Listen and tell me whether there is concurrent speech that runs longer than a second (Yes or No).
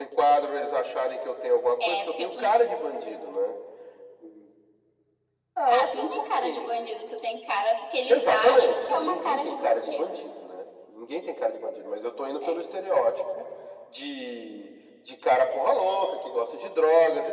Yes